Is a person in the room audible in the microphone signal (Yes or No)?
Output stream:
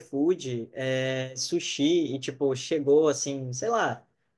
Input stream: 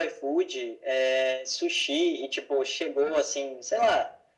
No